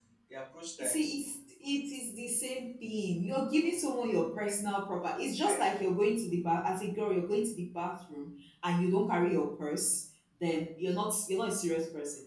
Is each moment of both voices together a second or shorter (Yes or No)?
Yes